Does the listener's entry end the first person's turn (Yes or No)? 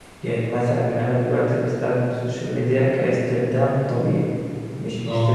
No